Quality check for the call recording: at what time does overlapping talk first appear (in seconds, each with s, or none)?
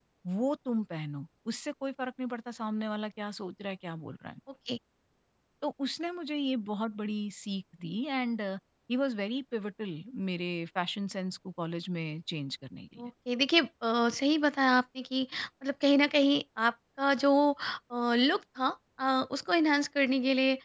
none